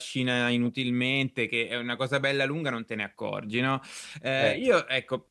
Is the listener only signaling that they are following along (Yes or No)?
Yes